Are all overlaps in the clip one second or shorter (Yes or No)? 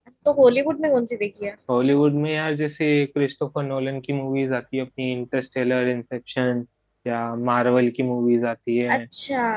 Yes